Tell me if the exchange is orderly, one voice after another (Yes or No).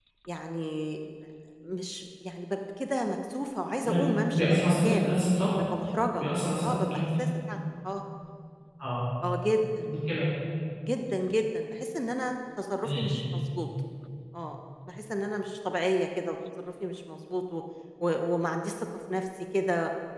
No